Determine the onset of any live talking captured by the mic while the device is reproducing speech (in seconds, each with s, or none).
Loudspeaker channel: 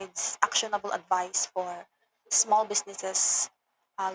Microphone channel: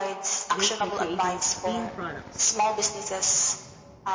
0.5 s